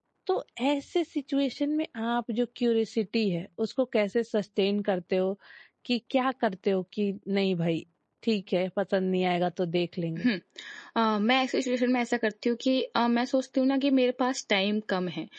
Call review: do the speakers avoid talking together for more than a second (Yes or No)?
Yes